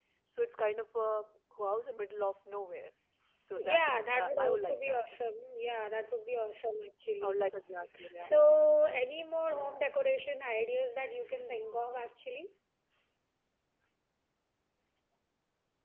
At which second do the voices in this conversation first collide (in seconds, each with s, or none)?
3.6 s